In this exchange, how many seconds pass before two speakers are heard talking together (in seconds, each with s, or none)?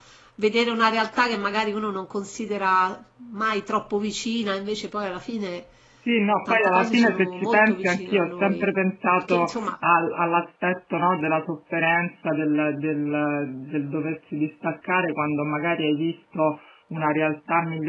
6.5 s